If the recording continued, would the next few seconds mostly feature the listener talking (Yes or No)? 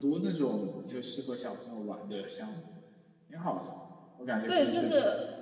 Yes